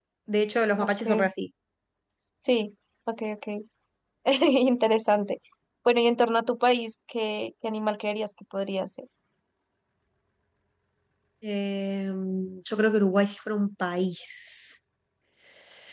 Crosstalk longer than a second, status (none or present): none